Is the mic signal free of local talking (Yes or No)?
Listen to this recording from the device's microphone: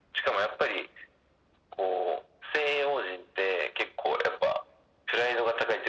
Yes